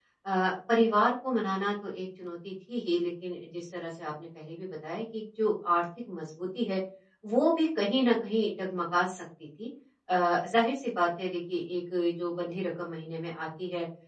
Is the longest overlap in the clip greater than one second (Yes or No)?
No